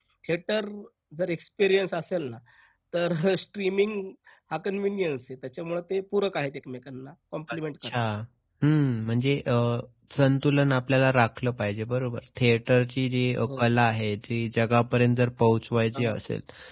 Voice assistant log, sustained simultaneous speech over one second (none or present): none